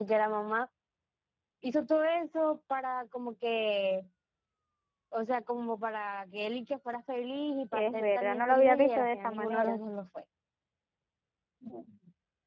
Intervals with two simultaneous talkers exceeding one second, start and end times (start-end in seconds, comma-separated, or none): 7.7-9.8